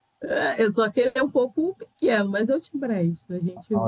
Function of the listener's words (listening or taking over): taking over